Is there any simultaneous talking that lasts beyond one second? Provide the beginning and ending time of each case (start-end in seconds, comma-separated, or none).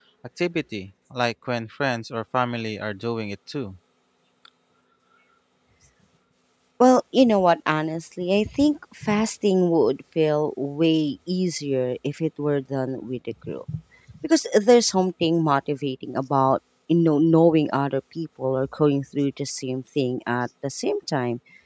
none